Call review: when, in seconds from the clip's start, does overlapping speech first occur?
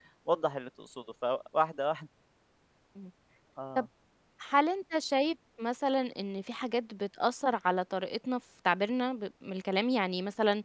none

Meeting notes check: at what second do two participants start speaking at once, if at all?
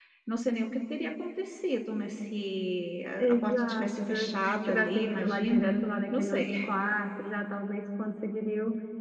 3.2 s

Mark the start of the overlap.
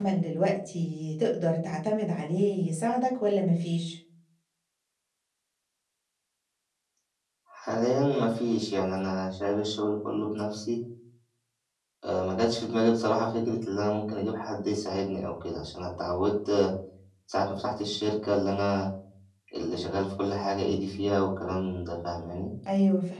none

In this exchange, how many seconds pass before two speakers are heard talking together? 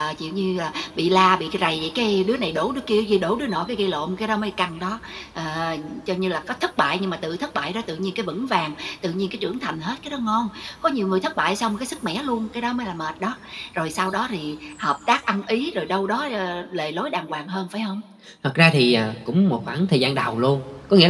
none

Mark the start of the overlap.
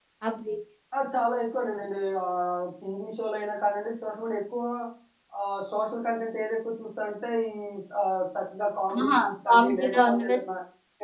8.9 s

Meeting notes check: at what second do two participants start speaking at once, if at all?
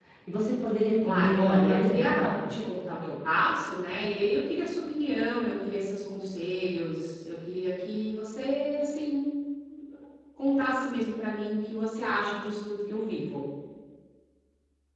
1.0 s

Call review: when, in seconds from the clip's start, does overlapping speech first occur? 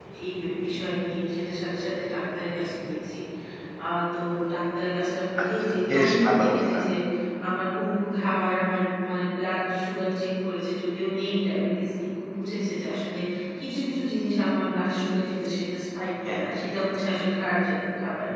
5.6 s

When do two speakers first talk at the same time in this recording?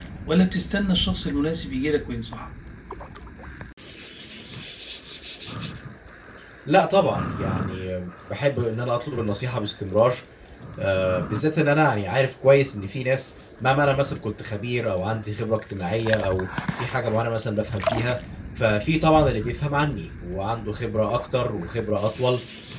none

